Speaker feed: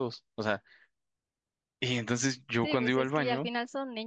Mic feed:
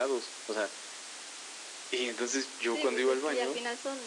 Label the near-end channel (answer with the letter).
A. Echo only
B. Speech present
A